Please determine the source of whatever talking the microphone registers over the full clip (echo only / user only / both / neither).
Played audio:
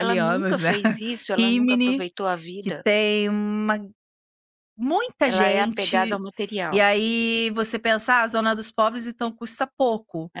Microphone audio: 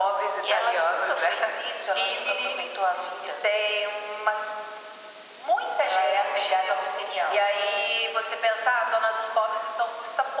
echo only